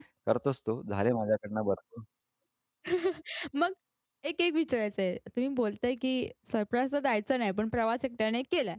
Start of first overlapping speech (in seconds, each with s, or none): none